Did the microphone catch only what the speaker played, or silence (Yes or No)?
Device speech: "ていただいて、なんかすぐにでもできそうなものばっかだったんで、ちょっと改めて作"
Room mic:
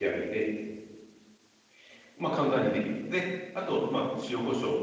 No